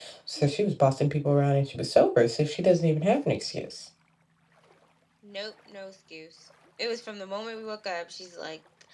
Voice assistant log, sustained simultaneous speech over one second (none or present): none